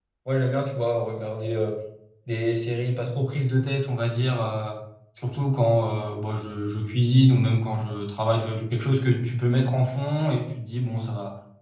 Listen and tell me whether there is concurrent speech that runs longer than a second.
No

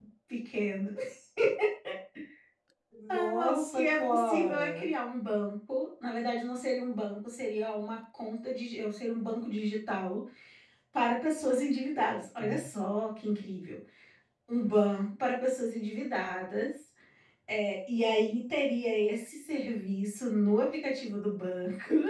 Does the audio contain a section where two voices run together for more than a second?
Yes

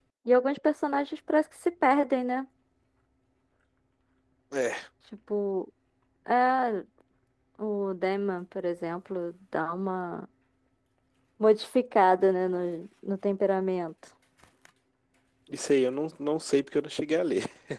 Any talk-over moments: No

